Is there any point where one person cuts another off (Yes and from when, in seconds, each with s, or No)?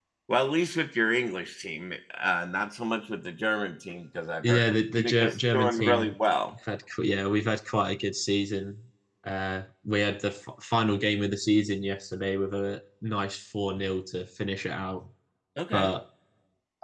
Yes, from 4.4 s